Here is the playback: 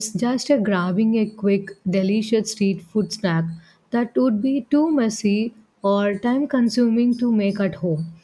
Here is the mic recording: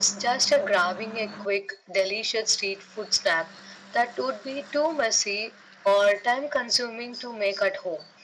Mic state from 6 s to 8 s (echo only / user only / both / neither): echo only